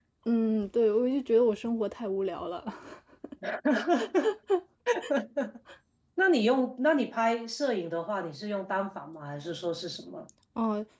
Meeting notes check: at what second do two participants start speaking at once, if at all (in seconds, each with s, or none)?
none